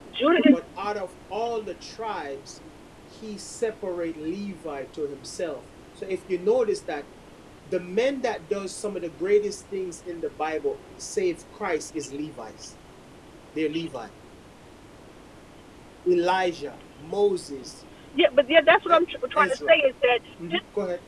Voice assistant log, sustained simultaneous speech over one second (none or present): none